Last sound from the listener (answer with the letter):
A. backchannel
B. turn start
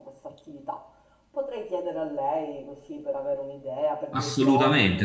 B